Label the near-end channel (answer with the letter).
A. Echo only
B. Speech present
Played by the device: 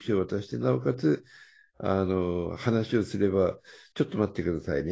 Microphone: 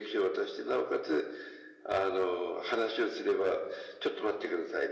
A